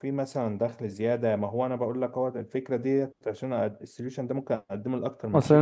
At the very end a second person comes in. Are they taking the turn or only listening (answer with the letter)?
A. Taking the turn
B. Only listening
A